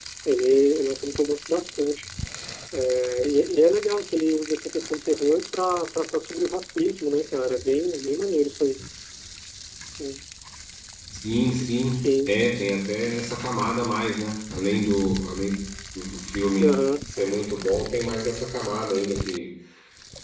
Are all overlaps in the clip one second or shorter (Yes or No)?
Yes